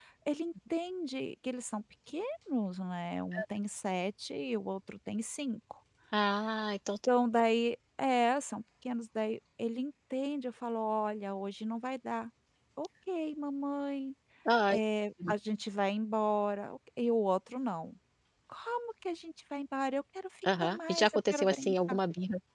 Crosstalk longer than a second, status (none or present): present